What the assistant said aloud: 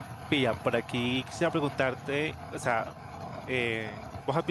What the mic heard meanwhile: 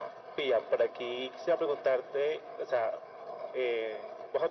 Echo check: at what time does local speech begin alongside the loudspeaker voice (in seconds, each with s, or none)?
none